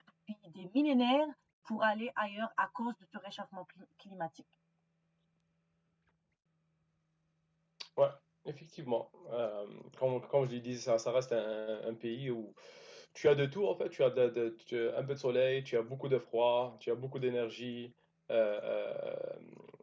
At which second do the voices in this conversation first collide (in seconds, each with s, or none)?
none